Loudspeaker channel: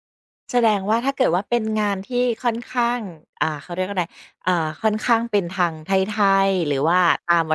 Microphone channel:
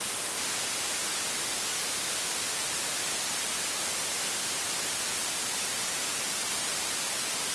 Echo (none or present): none